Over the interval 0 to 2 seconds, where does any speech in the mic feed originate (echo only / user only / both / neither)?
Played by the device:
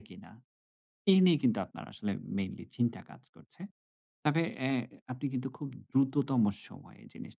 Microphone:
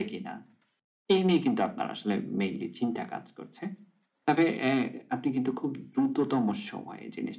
echo only